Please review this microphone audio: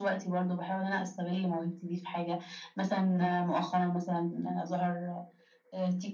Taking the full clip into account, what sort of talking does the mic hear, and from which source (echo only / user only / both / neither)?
echo only